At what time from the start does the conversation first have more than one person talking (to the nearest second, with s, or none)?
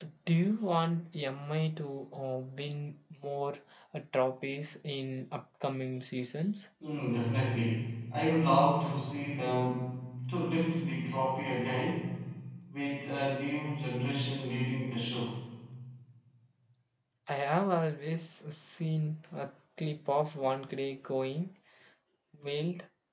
none